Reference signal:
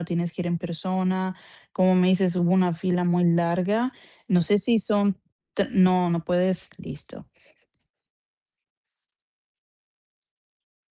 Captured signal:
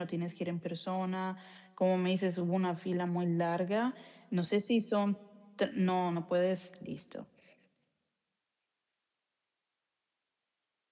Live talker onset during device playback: none

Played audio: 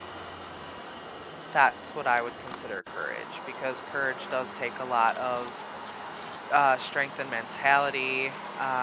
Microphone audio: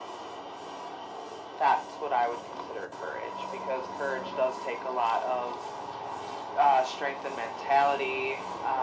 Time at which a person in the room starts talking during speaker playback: none

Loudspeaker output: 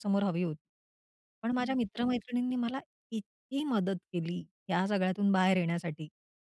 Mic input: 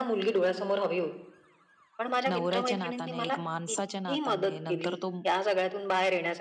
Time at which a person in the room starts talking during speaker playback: 2.3 s

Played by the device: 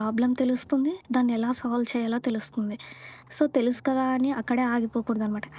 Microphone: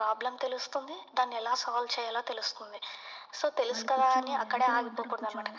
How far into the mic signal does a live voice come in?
3.7 s

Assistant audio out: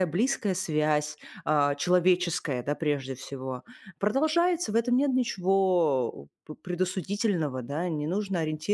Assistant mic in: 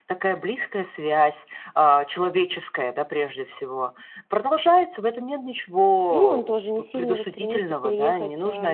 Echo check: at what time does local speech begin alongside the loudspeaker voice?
6.1 s

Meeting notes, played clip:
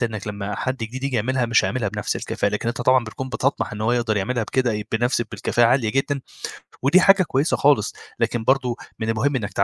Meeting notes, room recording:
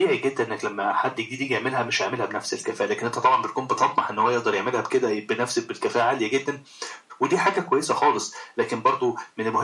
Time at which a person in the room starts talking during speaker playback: none

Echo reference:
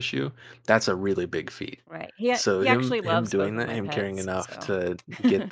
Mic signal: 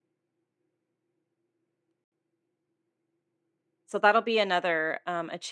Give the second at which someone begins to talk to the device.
3.9 s

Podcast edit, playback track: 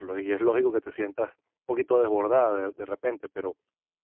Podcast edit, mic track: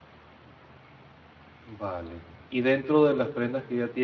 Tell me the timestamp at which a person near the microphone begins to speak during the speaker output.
1.6 s

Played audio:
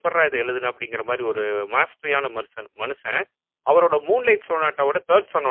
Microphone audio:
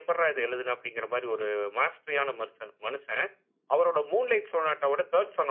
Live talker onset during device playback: none

